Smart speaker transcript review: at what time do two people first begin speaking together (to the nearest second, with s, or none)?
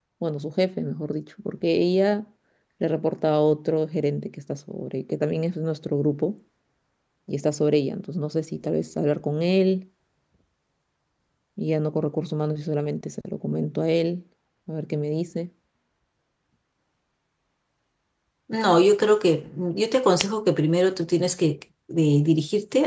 none